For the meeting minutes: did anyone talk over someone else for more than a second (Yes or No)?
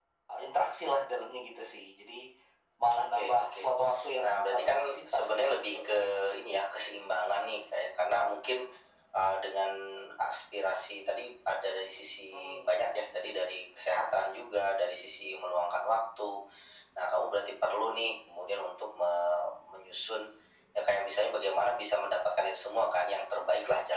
Yes